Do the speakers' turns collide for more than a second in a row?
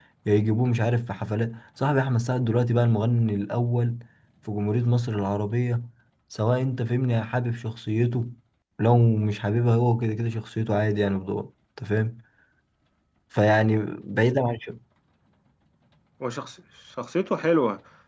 No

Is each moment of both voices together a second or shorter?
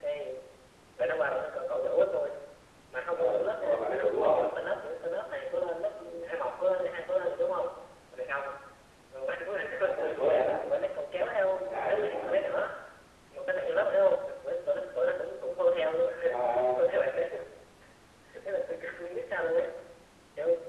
No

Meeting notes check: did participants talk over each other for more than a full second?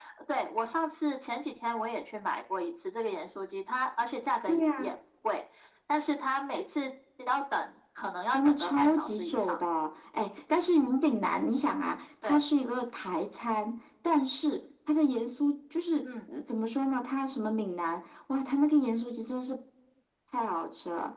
Yes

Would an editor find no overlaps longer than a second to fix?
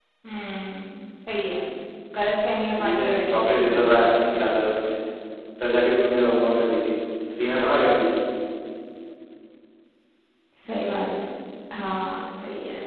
No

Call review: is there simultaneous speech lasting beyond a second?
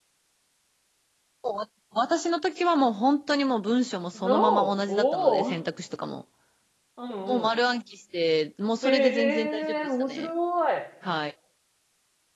Yes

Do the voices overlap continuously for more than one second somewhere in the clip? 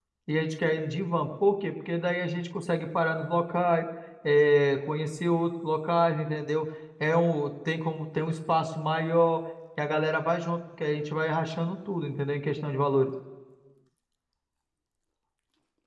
No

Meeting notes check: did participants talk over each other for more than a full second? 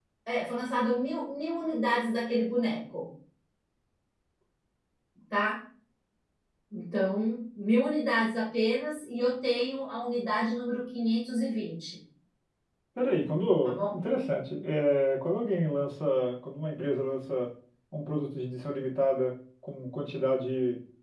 No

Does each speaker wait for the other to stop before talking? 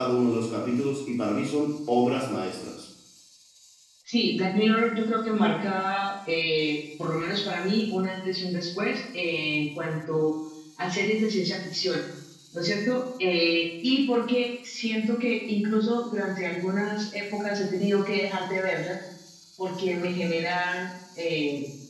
Yes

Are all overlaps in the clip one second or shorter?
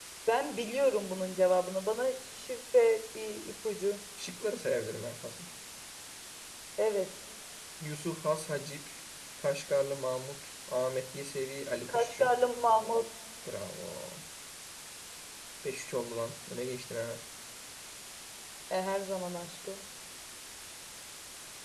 Yes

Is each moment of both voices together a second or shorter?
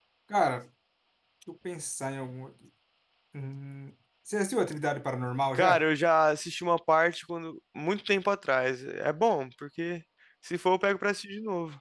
Yes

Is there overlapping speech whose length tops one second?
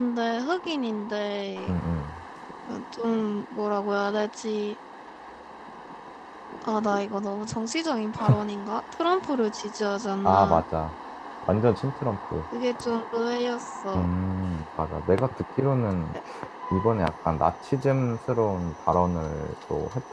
No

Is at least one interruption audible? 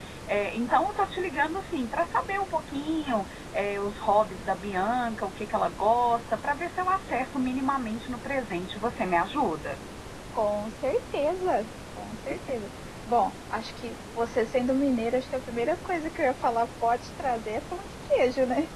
No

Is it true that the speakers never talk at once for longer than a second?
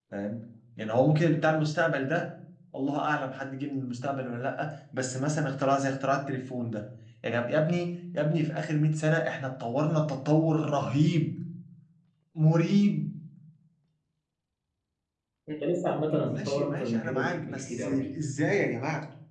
No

